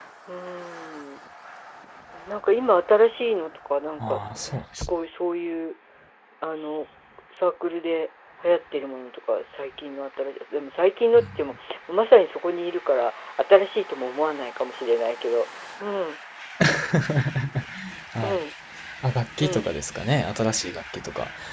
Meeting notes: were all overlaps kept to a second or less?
Yes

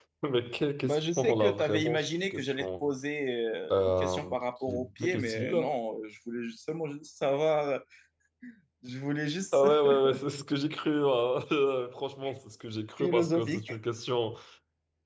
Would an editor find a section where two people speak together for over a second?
Yes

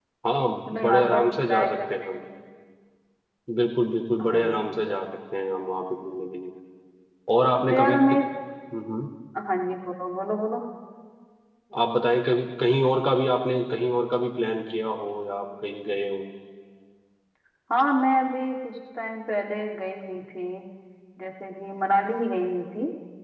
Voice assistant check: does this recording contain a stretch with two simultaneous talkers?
Yes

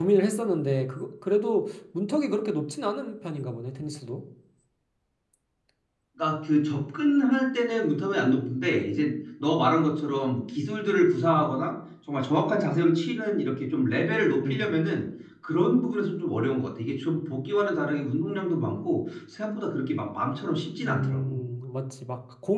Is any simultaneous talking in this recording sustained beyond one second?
No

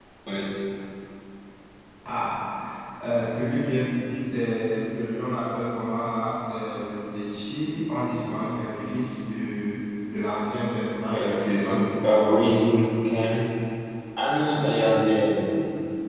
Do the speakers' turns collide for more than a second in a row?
Yes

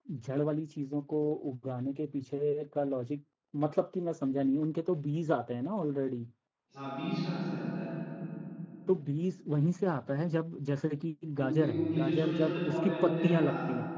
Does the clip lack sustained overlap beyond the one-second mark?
No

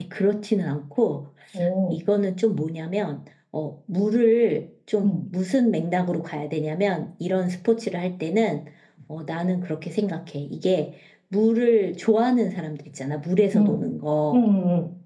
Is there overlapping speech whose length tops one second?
No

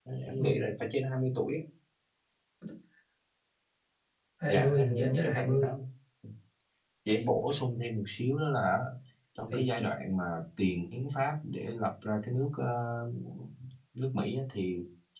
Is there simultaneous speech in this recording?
Yes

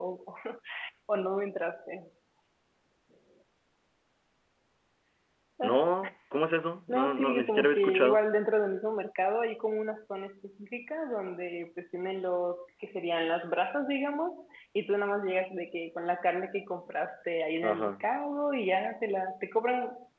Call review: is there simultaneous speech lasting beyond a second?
Yes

